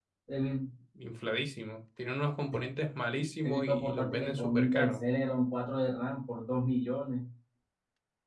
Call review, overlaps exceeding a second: present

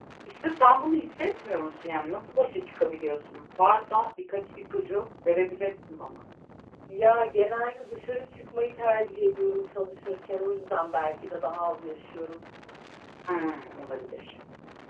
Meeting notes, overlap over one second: none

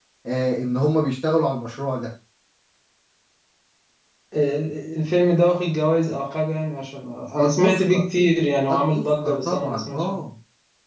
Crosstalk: present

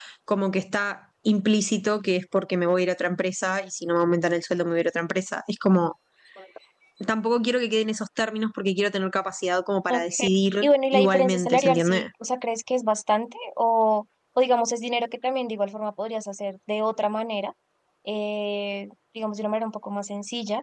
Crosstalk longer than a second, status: present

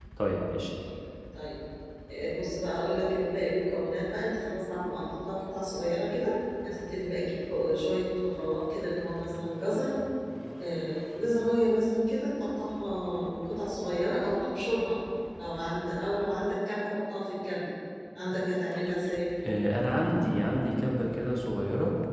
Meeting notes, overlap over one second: none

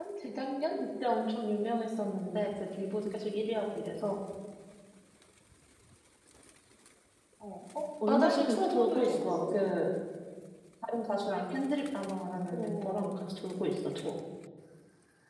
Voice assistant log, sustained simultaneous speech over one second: present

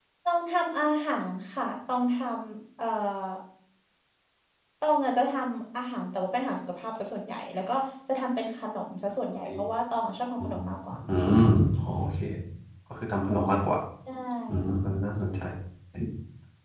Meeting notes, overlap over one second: none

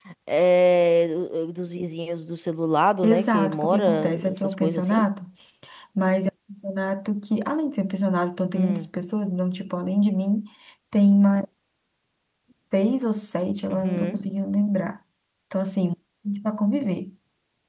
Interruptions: present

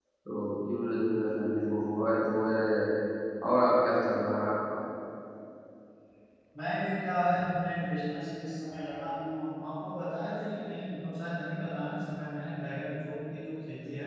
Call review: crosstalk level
none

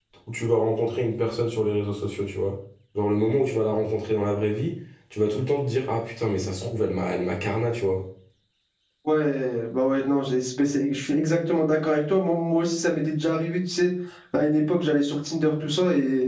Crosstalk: none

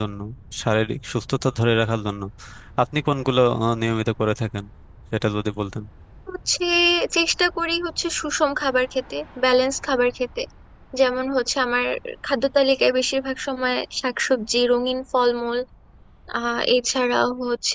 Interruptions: none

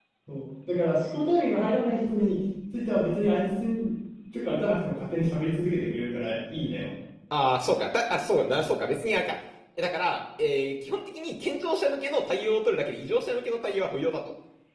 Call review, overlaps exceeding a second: none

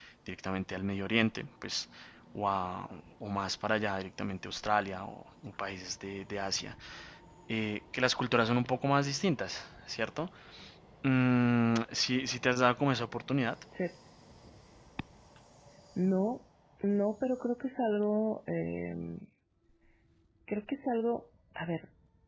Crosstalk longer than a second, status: none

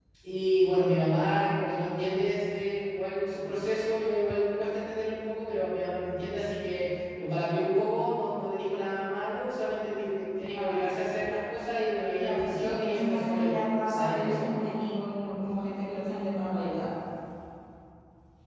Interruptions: present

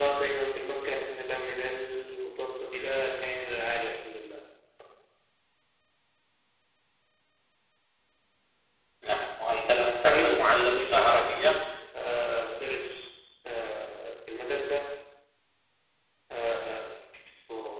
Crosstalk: present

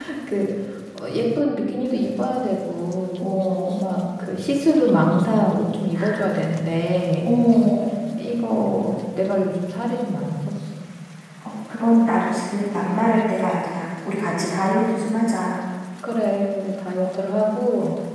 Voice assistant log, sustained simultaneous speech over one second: none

